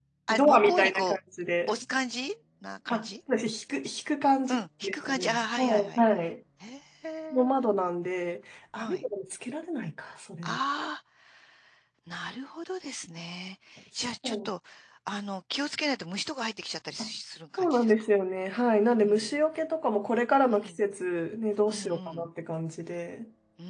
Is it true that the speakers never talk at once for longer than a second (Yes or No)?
No